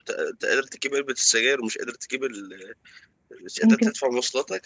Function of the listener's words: listening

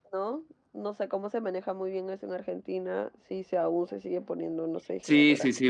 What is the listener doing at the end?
taking over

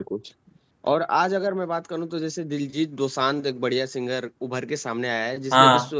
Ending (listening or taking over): listening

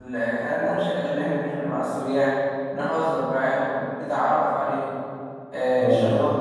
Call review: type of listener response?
listening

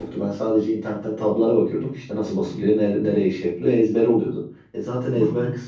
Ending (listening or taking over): listening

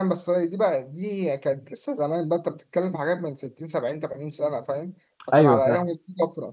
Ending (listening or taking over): listening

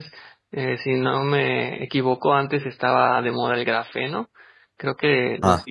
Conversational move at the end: listening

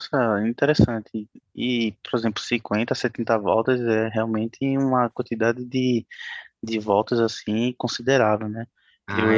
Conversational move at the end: taking over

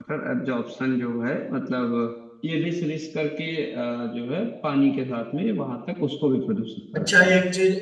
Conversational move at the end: taking over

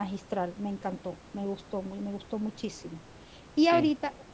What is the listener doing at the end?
listening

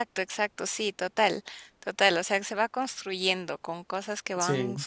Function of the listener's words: listening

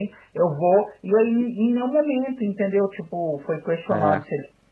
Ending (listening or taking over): listening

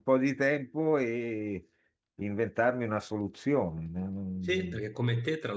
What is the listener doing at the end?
taking over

